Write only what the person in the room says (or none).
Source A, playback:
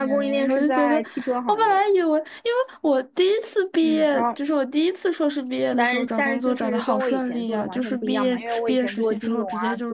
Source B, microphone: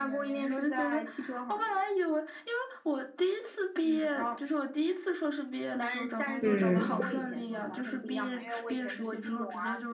嗯，